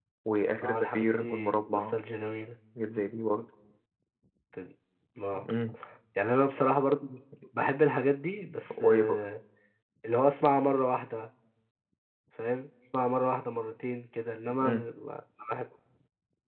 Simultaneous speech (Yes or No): Yes